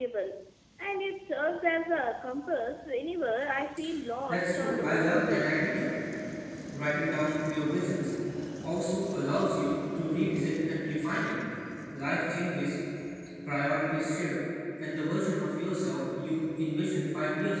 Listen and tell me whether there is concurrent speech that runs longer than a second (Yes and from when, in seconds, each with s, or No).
Yes, from 4.3 s